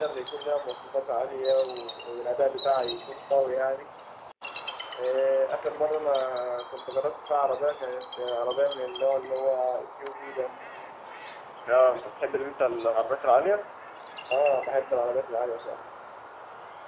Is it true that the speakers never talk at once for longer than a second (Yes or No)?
Yes